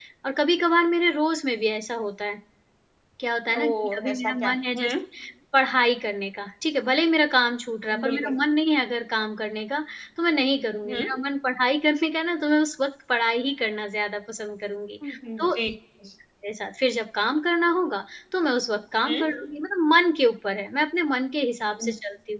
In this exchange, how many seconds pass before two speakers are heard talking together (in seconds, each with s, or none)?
3.6 s